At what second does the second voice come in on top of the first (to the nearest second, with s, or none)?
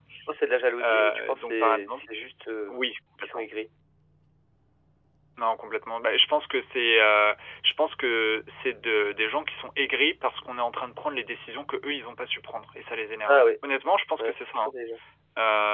1 s